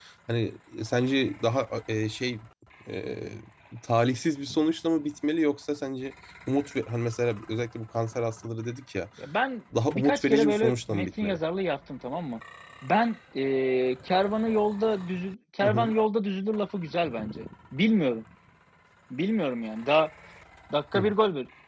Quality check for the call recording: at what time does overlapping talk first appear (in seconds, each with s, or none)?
9.9 s